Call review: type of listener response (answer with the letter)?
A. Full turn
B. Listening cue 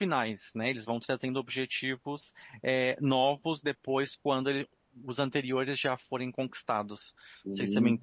A